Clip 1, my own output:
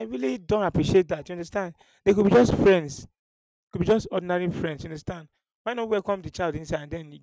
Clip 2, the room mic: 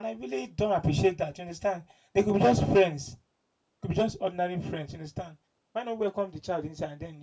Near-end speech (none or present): none